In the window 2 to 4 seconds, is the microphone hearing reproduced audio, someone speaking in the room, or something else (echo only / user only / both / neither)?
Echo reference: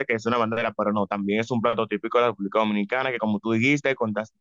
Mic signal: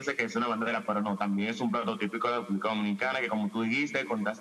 echo only